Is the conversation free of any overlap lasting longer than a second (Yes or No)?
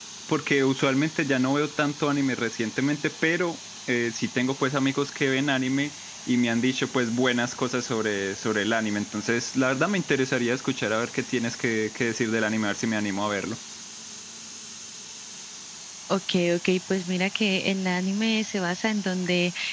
Yes